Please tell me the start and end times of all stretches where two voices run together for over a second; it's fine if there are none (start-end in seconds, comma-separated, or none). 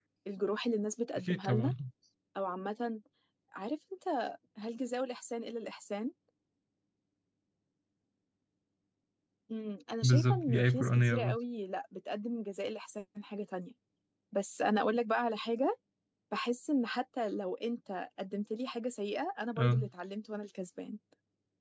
10.0-11.4